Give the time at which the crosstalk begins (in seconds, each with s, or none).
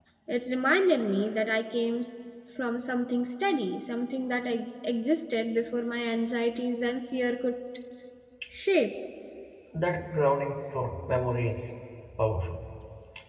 none